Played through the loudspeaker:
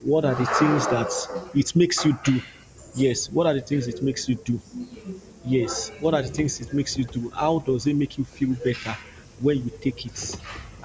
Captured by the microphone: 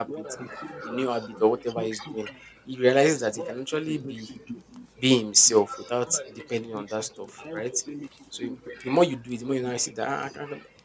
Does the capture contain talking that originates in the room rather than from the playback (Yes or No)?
Yes